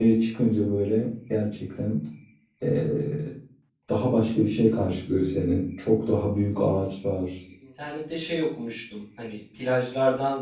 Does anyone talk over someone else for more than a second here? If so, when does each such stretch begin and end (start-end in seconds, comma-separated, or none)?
none